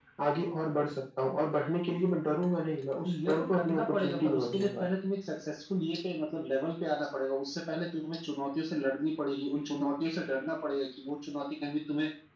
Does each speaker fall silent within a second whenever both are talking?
No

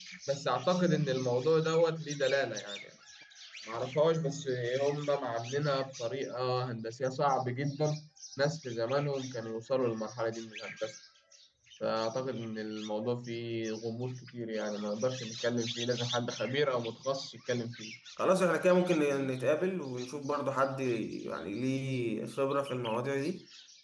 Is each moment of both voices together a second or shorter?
Yes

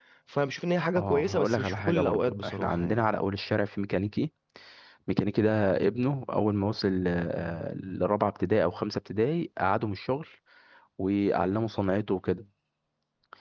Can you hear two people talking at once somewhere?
Yes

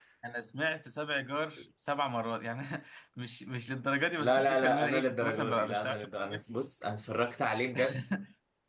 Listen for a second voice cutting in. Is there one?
Yes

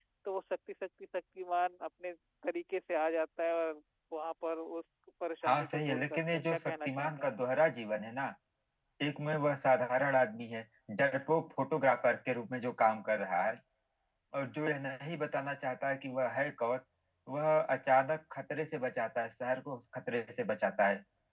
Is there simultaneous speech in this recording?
Yes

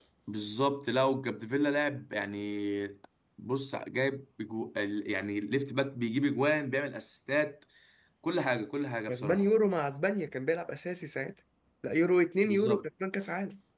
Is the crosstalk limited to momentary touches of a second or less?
Yes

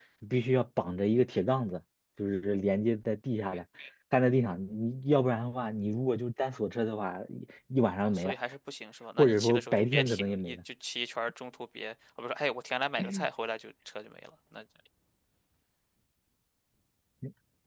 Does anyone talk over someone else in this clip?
Yes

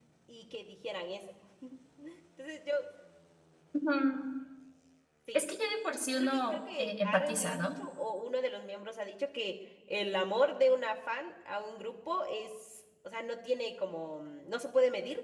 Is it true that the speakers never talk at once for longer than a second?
No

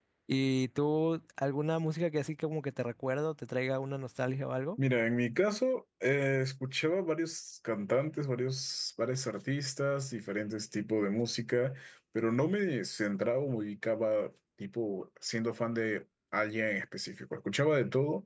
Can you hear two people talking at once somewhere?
No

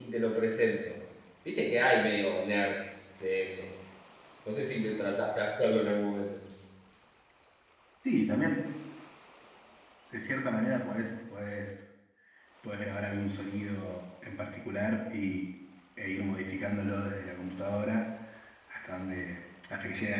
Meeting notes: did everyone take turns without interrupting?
Yes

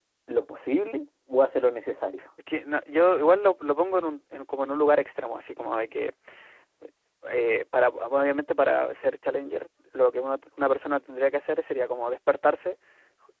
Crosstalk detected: No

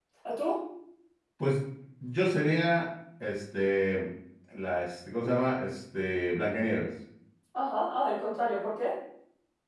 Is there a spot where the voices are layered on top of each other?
No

